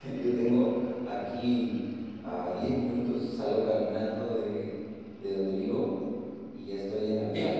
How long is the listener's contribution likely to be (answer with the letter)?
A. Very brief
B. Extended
A